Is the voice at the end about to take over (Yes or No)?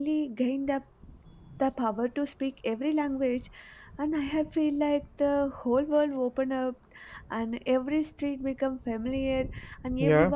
No